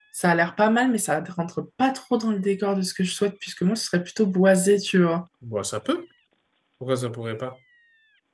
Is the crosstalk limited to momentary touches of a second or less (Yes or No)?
Yes